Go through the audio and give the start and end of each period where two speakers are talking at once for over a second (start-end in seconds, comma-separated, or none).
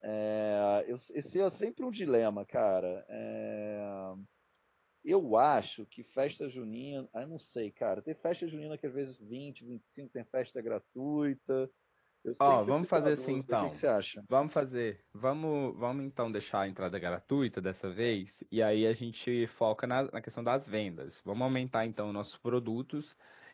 12.4-13.8